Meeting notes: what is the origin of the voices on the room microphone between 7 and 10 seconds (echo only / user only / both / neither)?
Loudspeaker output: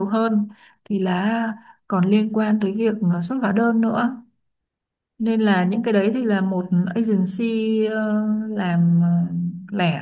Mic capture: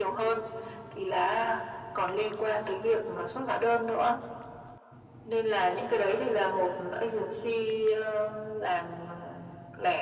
echo only